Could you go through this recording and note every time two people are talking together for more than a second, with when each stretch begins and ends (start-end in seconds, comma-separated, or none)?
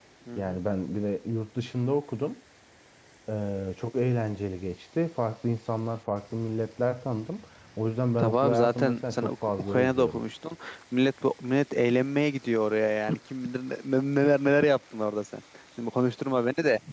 8.2-10.2